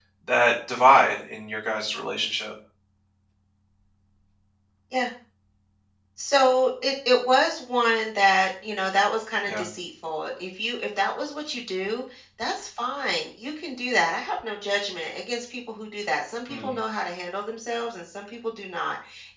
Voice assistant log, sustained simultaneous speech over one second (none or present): none